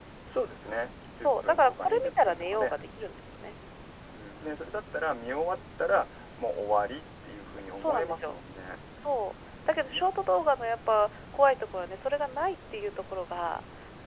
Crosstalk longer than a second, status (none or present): present